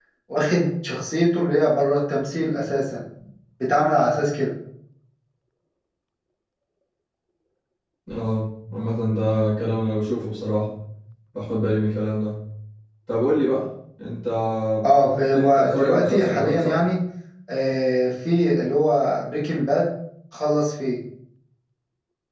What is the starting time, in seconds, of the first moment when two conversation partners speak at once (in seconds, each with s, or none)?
14.9 s